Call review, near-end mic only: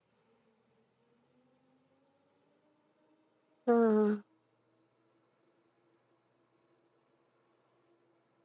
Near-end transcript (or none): ആഹ്